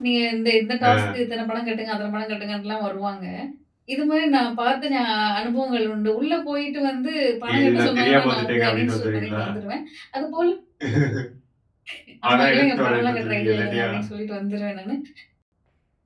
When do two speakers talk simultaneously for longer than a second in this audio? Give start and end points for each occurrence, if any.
7.5-9.4, 12.3-13.9

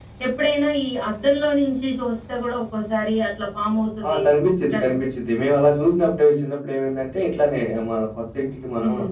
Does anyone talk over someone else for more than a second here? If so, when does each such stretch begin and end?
none

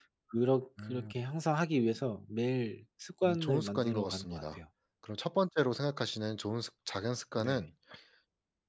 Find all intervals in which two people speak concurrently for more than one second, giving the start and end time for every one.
3.2-4.6

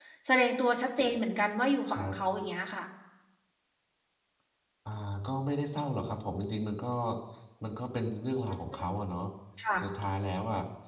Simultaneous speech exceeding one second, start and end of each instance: none

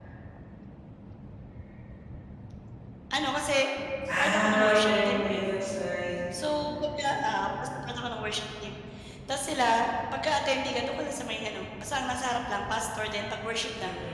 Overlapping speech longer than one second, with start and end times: 4.2-5.5

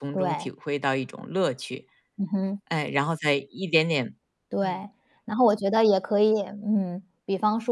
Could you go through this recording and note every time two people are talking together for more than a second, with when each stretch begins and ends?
none

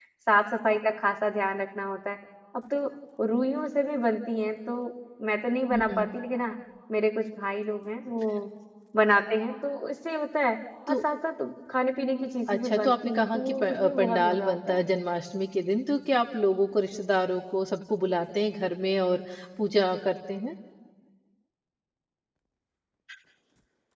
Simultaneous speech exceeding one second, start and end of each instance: 12.5-14.9

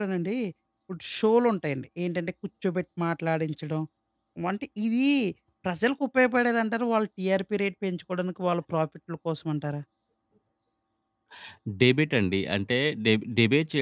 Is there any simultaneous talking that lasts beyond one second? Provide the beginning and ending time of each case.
none

